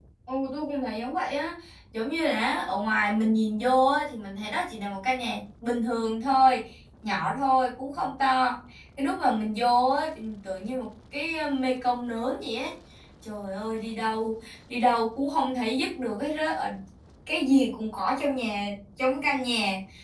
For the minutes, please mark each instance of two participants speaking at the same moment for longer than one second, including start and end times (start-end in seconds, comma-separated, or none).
none